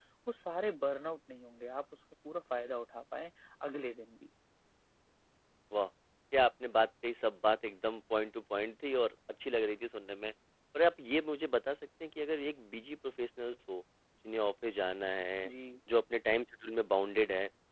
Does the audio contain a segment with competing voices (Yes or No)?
No